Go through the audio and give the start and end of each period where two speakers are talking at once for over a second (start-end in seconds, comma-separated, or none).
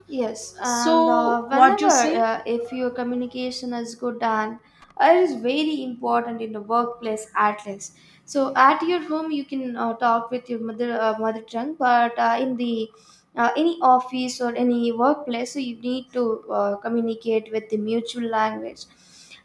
0.6-2.2